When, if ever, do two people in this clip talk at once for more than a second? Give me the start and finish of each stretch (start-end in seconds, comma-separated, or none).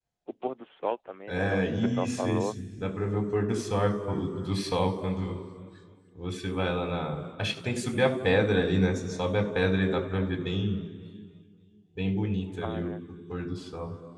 1.3-2.6